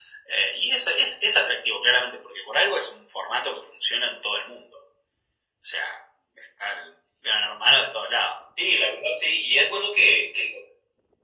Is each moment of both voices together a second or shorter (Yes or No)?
Yes